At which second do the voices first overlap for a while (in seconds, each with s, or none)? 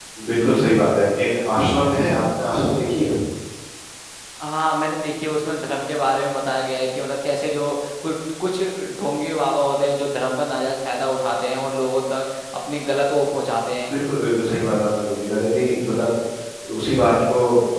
none